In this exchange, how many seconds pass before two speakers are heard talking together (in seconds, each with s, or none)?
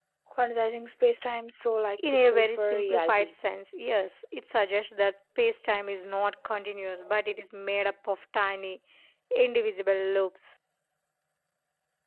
2.0 s